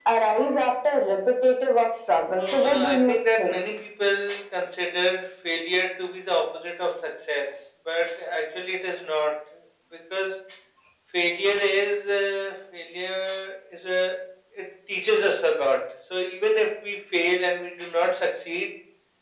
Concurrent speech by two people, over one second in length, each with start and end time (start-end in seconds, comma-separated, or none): 2.4-3.6